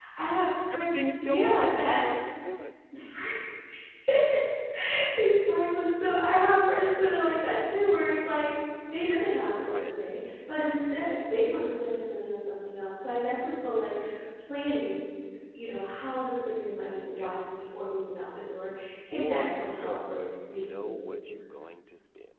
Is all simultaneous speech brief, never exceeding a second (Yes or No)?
No